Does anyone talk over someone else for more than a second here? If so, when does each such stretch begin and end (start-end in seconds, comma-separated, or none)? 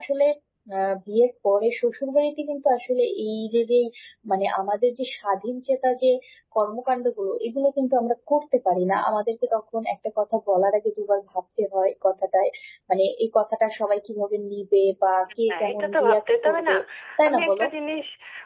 15.5-16.7